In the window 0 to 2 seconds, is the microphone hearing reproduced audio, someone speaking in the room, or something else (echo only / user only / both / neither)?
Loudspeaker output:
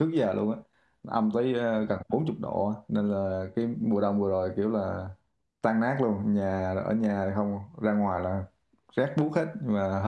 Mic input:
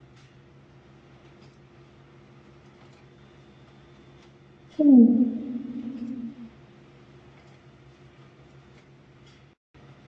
neither